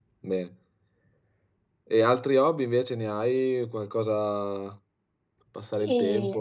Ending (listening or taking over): taking over